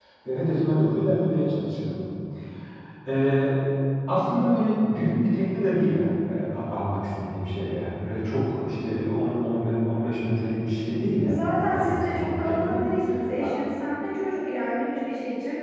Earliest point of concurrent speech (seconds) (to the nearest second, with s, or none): 11 s